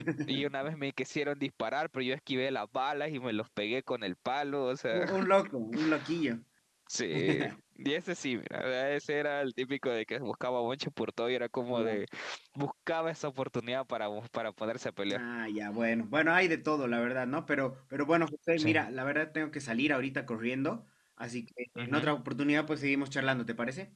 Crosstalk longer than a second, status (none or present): none